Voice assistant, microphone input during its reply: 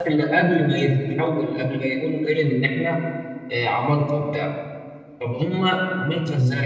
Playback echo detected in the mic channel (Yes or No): No